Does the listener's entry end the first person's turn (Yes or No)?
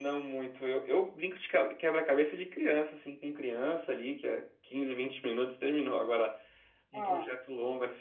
No